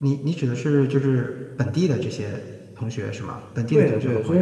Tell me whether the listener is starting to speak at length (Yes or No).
Yes